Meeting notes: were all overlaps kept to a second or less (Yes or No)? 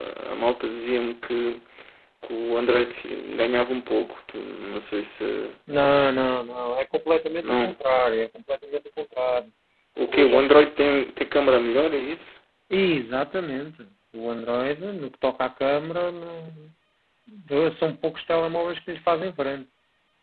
Yes